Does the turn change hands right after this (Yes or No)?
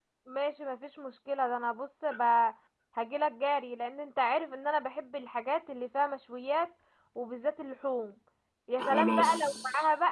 No